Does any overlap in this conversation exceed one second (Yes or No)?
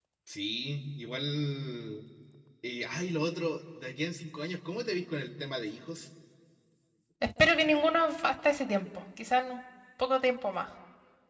No